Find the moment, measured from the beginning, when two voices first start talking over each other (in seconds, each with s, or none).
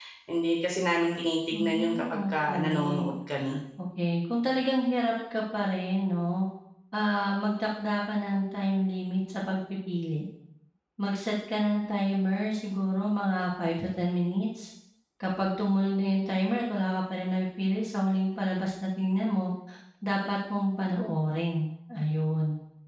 1.5 s